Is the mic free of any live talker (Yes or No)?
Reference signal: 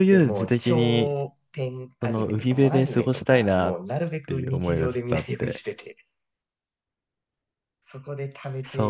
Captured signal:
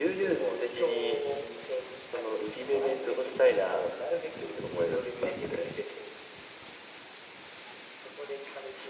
Yes